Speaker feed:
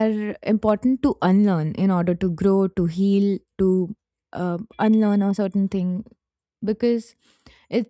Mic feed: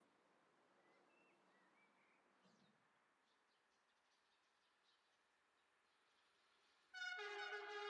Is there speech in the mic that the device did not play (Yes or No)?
No